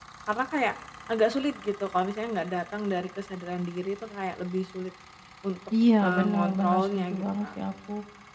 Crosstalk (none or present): present